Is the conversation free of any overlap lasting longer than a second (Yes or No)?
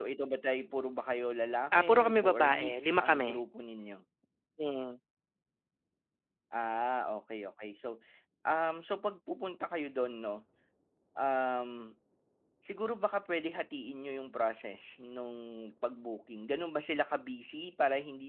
No